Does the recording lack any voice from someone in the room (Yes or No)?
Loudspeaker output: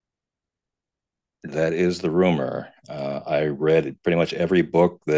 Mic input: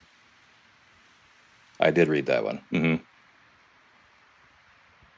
No